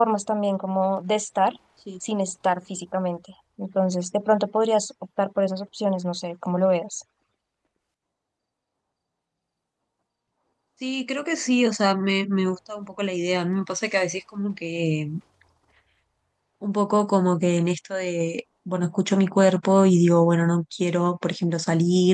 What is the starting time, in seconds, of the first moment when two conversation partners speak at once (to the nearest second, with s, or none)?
none